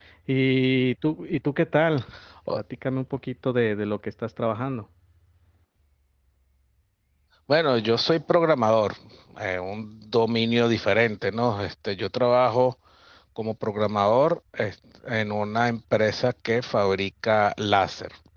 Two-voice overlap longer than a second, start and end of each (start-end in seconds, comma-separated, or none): none